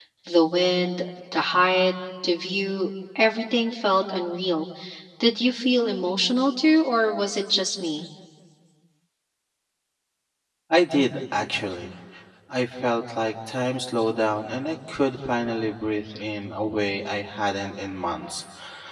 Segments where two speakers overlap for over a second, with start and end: none

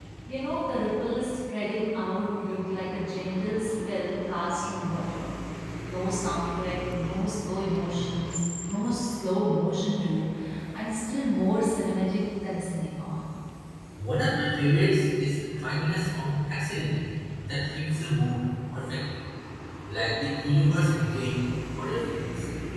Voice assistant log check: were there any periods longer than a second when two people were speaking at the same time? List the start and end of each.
none

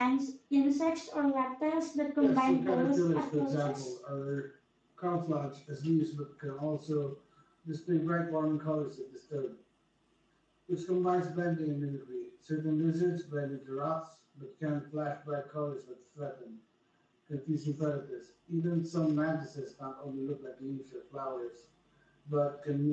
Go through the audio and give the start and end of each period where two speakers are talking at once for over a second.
2.2-3.9

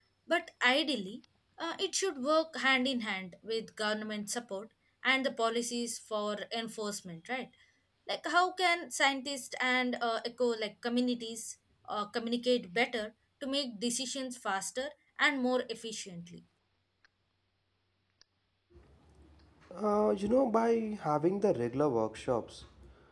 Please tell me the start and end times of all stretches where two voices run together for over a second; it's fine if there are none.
none

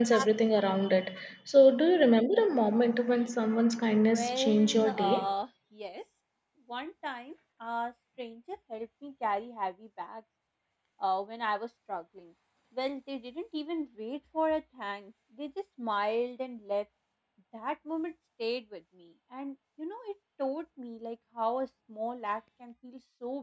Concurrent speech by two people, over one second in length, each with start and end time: 3.9-5.3

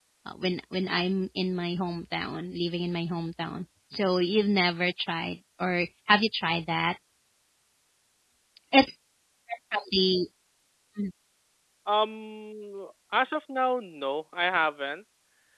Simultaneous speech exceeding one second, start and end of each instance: none

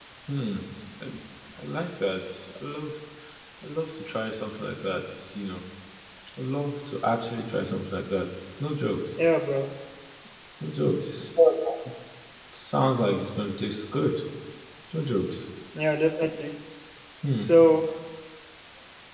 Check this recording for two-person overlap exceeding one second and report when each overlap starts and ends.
none

